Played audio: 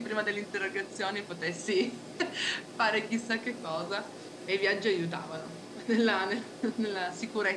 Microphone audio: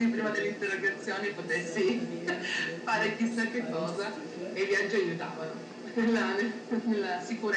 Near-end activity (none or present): present